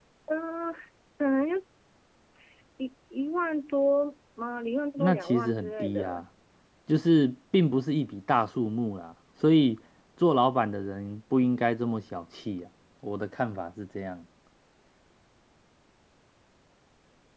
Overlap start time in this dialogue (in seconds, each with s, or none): 5.0 s